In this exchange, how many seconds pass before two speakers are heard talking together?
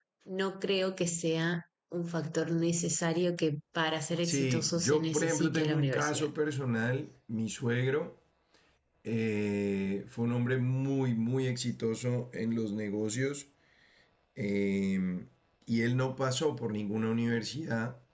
4 s

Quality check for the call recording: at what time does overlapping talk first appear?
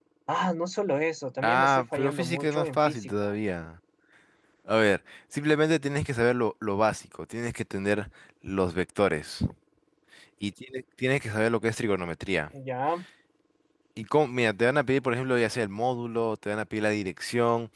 1 s

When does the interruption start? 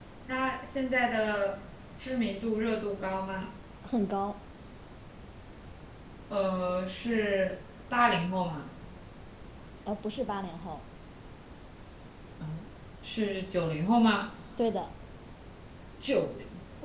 none

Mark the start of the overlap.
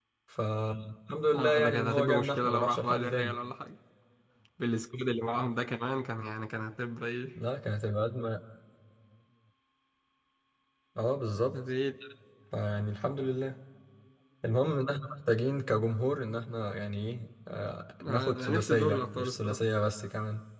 1 s

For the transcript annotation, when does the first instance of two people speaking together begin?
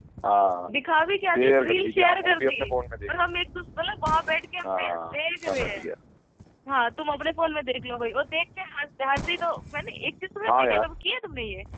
1 s

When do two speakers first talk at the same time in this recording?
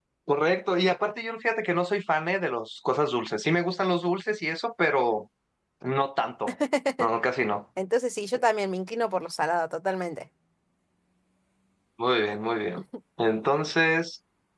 none

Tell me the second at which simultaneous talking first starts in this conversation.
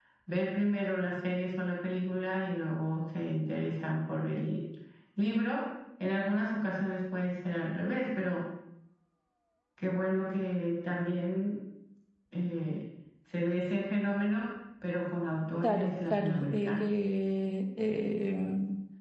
16 s

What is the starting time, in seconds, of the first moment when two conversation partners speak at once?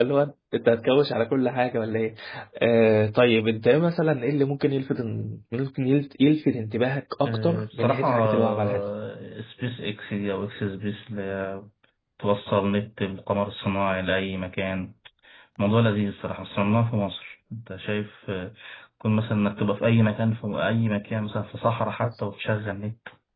7 s

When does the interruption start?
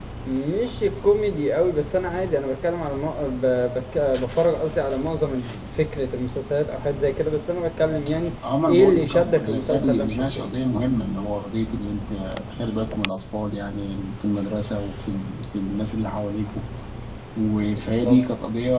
9 s

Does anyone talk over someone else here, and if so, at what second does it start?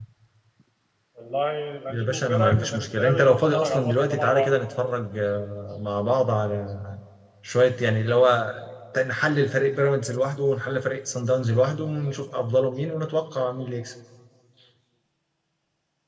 2 s

